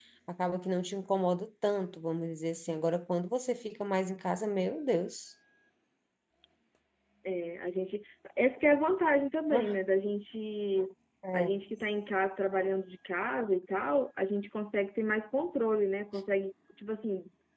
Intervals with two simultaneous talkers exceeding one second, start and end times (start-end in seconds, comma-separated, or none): none